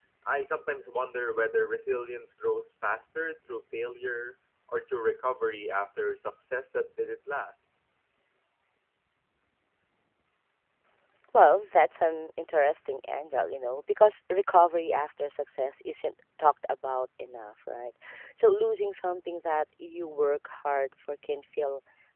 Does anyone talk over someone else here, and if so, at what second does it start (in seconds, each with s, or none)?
none